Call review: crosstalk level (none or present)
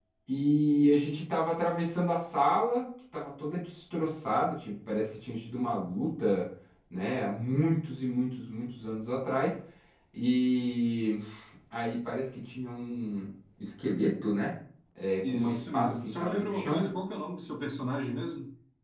present